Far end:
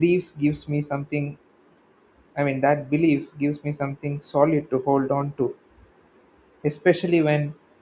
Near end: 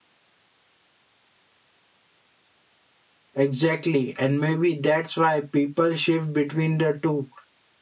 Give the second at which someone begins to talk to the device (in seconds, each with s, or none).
3.4 s